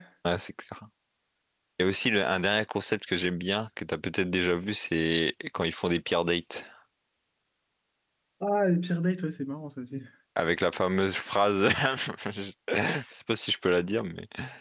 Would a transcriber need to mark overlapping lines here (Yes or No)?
No